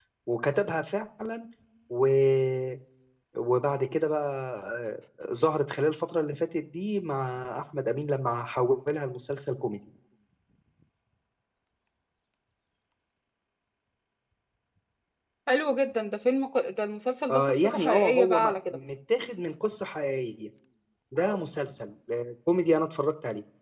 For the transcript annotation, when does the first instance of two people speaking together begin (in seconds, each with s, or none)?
17.3 s